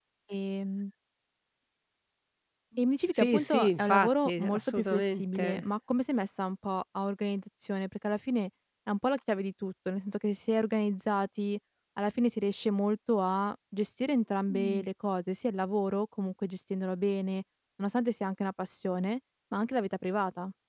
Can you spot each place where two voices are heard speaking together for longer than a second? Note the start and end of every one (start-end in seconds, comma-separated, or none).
3.0-5.6